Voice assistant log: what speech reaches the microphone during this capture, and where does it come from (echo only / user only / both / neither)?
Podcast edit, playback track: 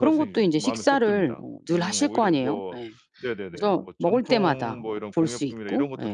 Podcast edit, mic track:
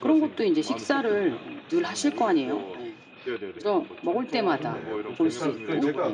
both